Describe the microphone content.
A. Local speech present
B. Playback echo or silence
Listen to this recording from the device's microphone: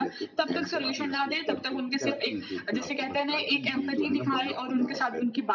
B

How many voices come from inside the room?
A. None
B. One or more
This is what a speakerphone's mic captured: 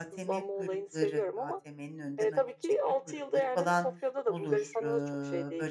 B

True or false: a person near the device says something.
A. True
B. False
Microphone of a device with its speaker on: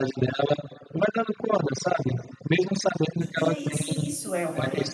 A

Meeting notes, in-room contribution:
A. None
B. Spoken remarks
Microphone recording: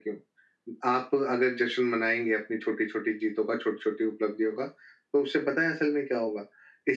A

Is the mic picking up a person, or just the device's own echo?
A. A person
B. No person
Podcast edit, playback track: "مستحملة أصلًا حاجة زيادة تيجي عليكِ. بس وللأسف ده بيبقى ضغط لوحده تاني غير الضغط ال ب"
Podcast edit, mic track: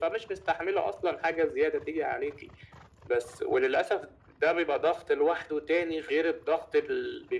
B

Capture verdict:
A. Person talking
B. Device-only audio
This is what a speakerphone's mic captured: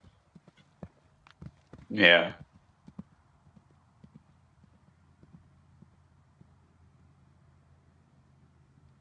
A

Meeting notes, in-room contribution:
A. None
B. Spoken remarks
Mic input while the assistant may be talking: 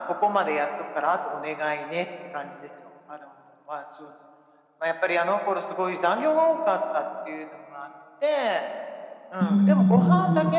B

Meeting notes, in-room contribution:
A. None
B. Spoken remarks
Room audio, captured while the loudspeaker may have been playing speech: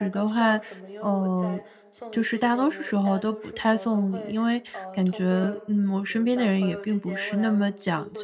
B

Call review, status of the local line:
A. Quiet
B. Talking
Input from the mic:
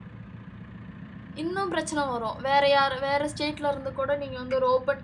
B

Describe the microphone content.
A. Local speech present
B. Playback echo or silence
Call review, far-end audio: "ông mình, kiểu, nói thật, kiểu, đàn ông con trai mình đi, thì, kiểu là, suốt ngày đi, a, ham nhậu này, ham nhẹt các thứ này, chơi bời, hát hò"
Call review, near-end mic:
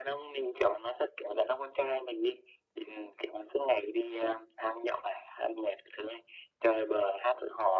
B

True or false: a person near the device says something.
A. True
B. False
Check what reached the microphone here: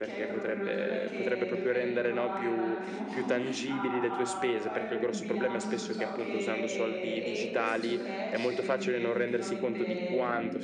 A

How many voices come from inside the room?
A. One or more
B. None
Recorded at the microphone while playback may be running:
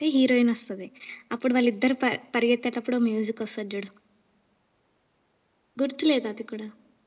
B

